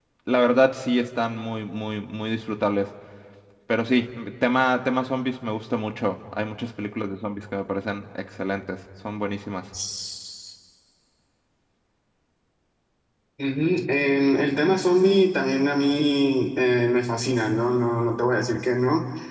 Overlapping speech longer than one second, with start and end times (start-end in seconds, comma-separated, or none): none